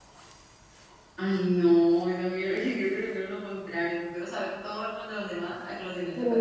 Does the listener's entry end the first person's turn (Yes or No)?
Yes